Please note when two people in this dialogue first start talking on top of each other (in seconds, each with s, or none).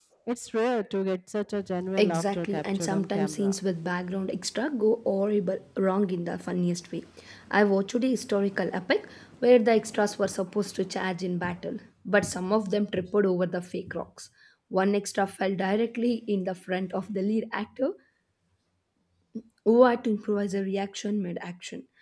2.0 s